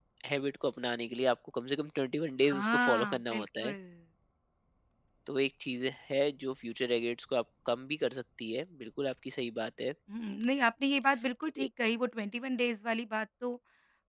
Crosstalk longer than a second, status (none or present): present